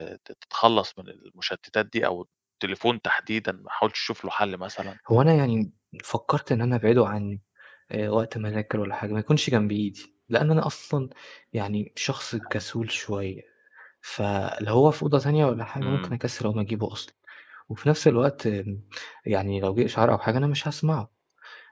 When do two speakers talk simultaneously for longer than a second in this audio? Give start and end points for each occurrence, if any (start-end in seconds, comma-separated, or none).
none